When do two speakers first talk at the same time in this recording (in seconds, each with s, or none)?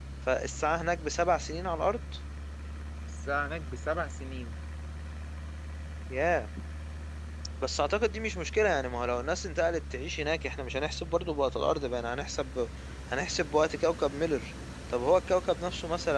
none